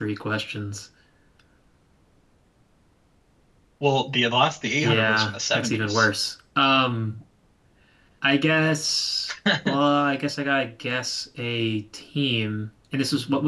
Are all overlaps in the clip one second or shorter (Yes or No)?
No